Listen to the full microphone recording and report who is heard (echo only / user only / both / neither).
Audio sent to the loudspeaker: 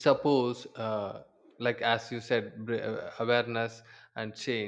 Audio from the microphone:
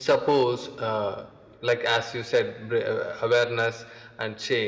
echo only